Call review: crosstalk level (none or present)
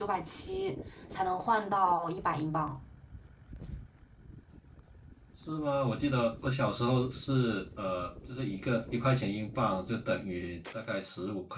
none